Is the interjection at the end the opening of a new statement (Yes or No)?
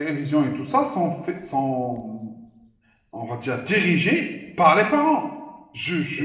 No